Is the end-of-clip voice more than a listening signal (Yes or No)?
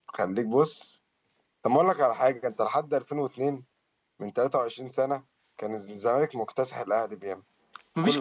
Yes